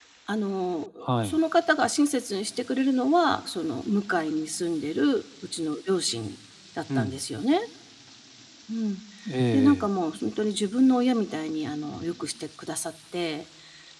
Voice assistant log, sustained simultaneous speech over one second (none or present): none